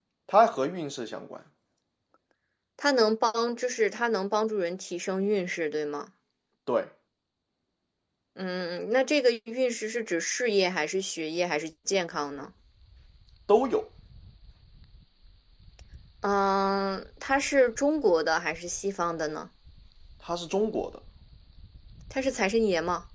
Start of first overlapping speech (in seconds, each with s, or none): none